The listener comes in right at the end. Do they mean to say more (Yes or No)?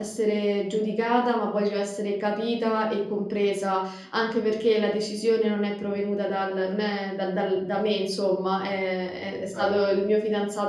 No